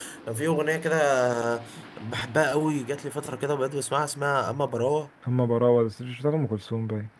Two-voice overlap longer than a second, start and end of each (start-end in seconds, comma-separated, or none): none